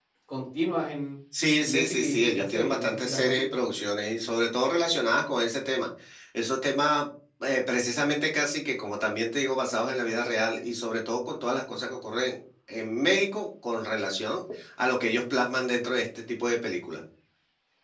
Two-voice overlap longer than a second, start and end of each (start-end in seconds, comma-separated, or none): 1.6-3.4